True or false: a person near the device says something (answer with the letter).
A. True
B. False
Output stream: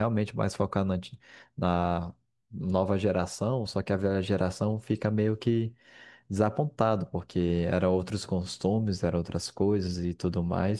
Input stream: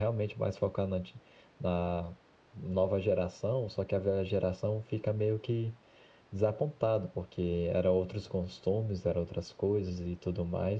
B